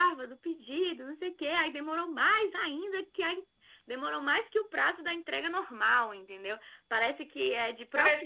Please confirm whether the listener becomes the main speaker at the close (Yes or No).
Yes